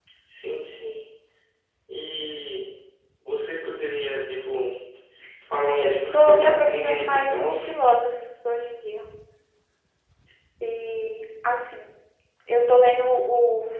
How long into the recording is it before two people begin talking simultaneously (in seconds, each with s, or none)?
5.8 s